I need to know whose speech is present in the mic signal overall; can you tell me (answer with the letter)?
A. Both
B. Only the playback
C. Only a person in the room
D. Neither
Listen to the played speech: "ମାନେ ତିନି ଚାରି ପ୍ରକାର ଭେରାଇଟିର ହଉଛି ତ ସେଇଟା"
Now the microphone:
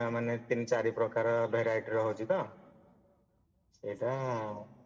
B